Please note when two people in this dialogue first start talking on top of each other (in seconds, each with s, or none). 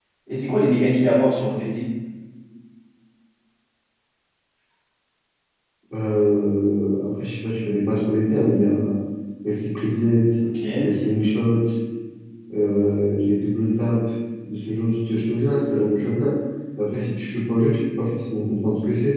none